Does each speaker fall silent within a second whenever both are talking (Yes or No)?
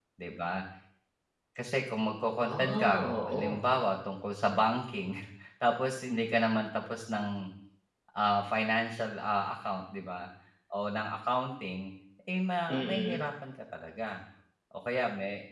No